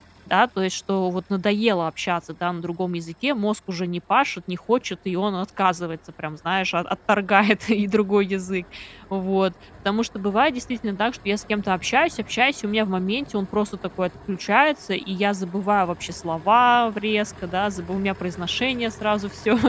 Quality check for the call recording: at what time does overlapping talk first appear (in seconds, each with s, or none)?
none